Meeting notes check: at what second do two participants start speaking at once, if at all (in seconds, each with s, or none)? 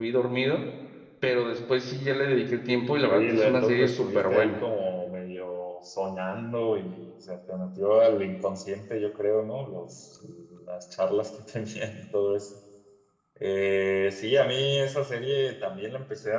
3.1 s